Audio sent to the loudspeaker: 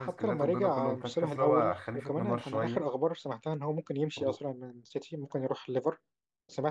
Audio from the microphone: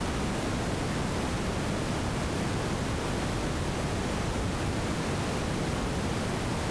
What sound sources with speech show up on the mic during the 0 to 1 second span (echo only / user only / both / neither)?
neither